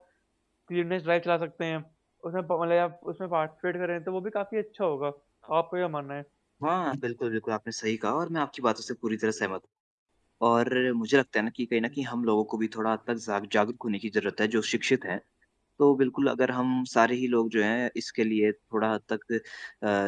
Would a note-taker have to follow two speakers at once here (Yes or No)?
No